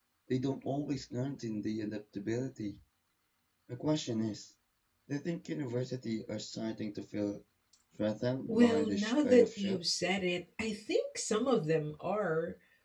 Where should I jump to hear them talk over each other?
8.5 s

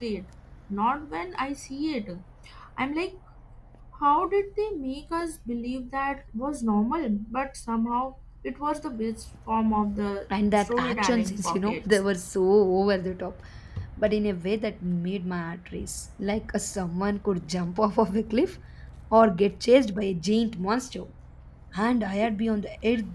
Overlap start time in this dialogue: 10.3 s

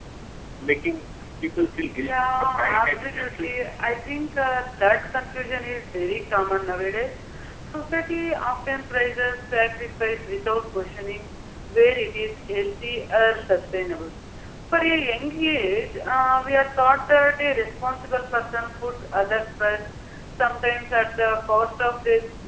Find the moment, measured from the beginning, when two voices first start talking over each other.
1.9 s

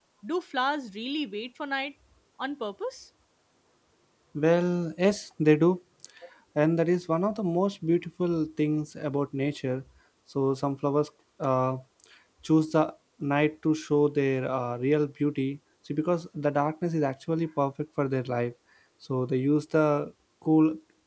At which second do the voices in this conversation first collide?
none

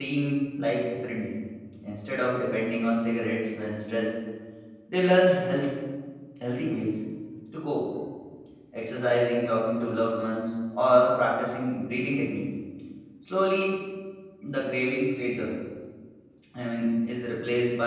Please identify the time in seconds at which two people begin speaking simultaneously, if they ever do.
none

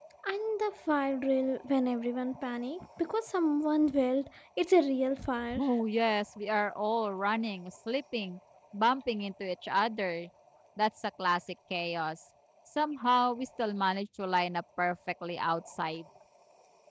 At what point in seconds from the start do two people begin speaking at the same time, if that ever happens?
none

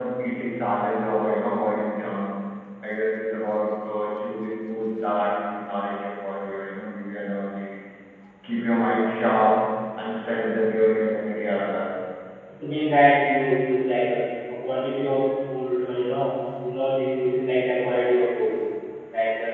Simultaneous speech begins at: none

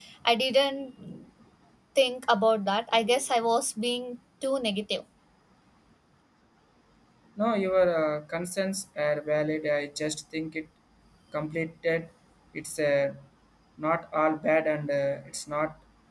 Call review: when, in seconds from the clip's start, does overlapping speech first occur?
none

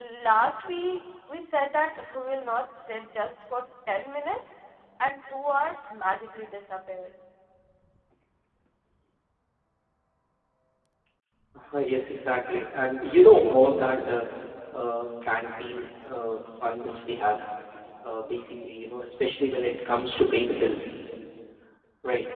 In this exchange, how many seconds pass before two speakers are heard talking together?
none

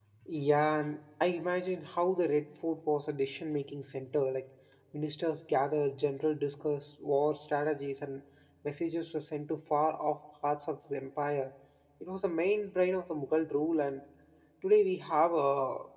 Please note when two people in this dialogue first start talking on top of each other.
none

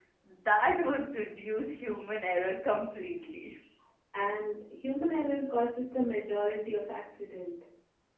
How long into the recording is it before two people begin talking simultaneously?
none

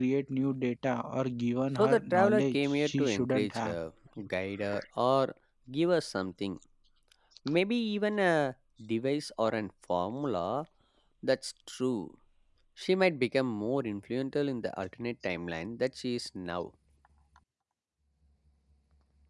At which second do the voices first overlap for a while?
1.8 s

